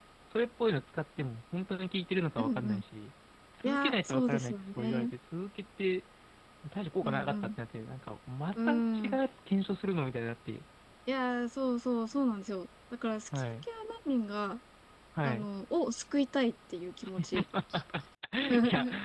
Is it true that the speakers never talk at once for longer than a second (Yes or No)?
No